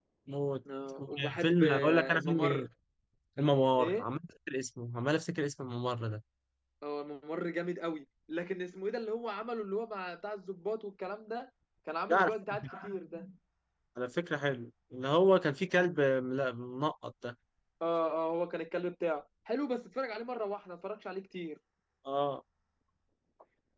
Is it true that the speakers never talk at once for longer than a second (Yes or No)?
No